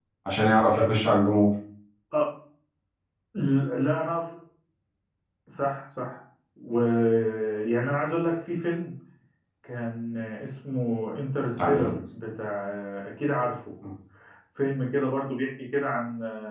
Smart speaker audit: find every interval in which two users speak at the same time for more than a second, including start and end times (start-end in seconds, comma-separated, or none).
none